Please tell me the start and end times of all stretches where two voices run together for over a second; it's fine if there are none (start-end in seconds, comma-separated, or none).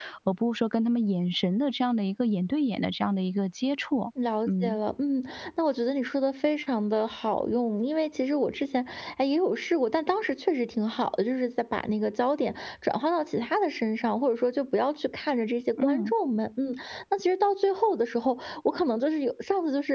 none